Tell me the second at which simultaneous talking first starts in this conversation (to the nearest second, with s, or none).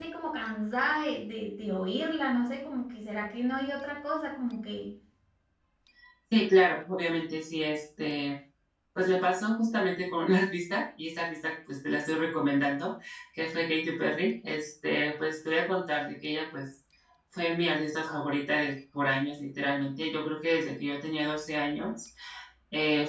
none